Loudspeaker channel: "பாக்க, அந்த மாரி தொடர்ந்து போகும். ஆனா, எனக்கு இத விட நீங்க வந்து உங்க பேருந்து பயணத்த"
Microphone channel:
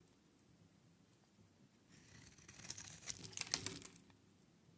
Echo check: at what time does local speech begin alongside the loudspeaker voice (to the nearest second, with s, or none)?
none